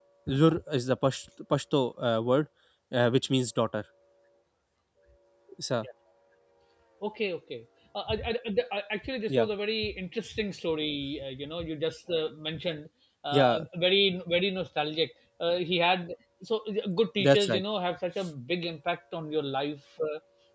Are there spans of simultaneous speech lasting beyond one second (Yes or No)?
No